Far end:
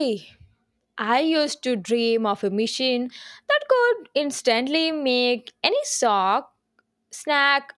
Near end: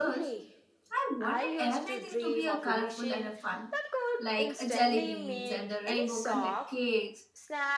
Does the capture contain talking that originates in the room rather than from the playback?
Yes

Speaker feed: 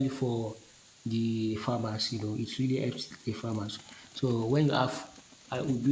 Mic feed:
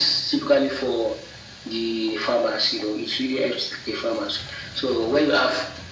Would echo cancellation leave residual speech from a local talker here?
No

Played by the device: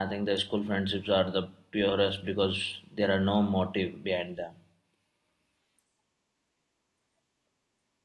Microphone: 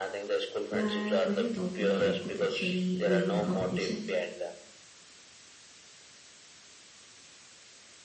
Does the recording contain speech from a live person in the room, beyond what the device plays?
Yes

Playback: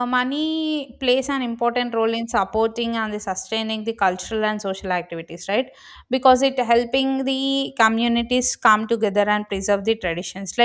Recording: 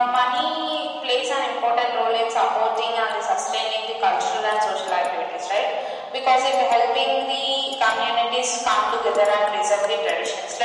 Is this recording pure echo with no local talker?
Yes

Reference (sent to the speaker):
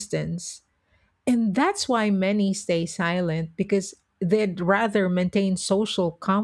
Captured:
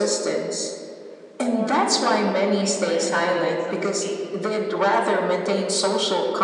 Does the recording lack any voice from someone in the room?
No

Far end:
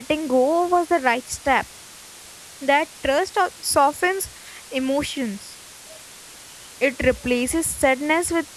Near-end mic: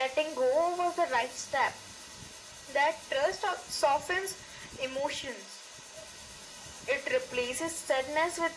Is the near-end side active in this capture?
No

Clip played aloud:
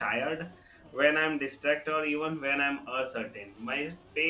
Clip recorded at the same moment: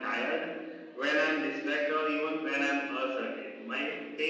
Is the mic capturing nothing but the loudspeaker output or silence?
Yes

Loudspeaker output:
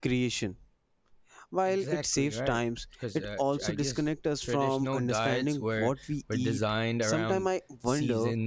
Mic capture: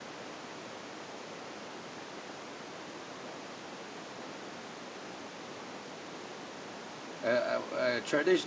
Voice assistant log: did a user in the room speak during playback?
Yes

